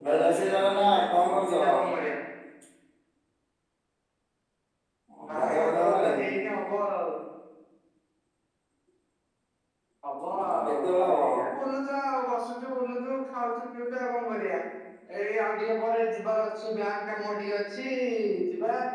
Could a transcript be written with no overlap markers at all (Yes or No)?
No